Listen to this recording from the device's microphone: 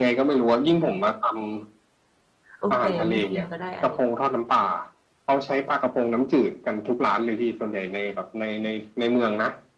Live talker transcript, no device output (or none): โอเคไม่กินก็ได้อันนี้